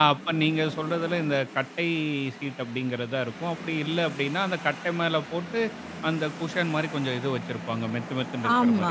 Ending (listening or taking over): taking over